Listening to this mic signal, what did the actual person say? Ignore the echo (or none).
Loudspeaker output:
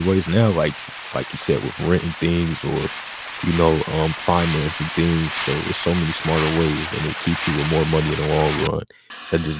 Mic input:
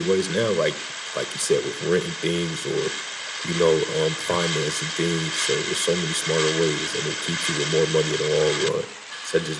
none